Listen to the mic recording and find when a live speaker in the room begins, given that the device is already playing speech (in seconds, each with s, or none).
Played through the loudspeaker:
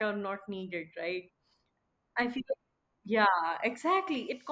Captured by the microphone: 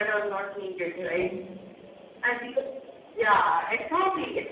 0.9 s